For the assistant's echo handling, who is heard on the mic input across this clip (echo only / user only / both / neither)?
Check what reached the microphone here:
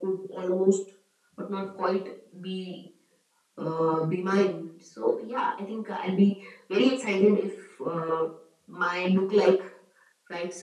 echo only